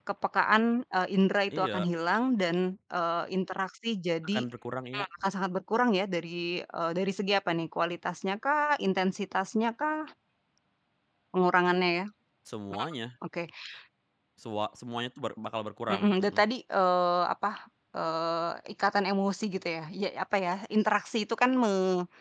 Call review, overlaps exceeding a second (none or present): none